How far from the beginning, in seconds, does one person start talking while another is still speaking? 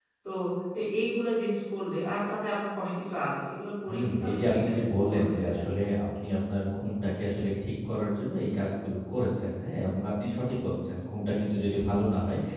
4 s

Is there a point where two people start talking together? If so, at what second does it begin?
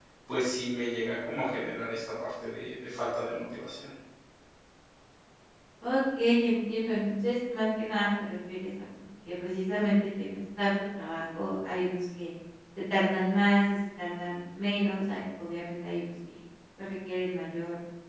none

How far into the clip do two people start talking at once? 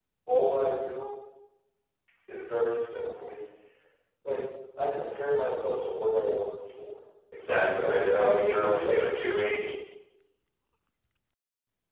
8 s

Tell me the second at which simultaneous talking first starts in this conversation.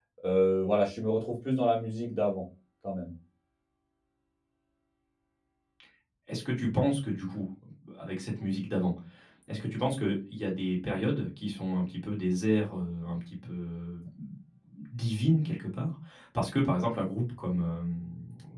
none

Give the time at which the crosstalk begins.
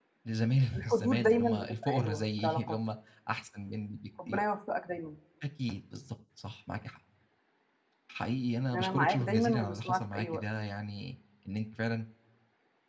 1 s

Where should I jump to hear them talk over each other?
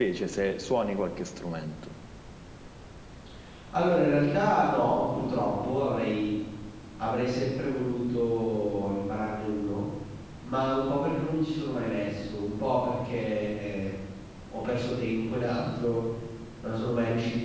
none

